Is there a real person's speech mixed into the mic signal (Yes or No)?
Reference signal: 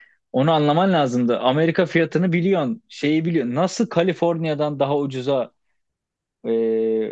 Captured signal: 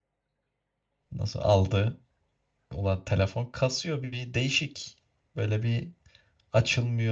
Yes